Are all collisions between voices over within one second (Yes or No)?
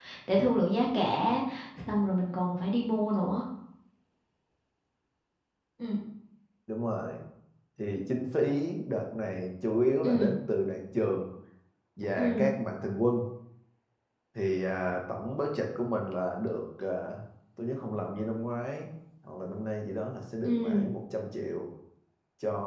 Yes